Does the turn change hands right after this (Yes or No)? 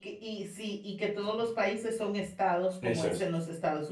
No